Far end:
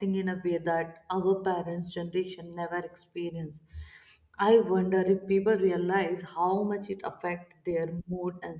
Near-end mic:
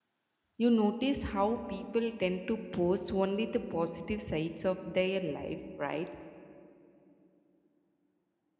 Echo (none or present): none